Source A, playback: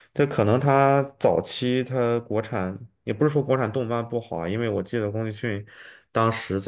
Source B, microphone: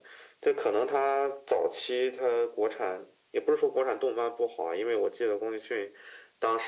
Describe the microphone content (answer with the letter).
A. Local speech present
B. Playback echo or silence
B